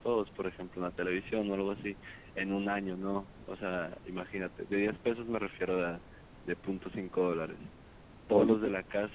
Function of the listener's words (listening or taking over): listening